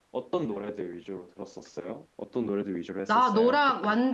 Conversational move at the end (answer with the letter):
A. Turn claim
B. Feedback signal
A